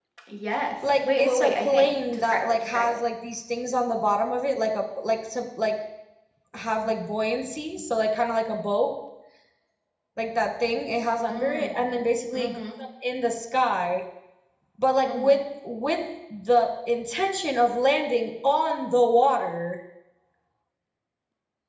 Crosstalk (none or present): present